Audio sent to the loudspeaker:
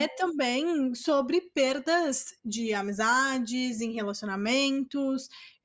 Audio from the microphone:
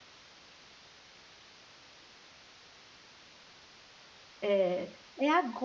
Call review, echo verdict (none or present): none